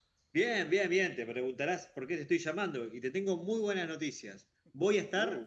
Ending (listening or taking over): listening